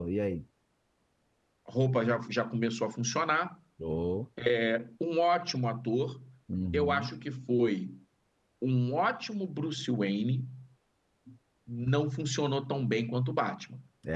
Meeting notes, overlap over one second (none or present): none